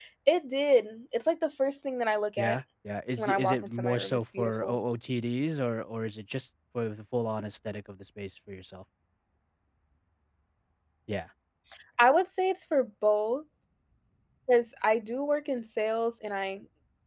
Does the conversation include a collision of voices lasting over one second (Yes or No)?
Yes